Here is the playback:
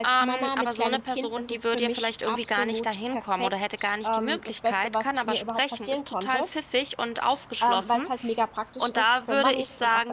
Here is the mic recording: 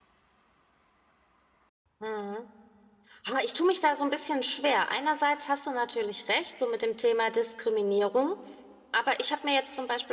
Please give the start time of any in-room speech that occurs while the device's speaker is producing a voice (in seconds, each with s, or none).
2.0 s